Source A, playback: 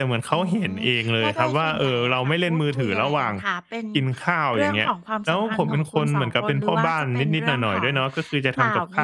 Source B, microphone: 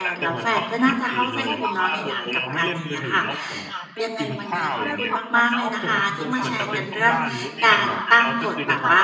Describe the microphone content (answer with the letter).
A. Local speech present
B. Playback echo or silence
A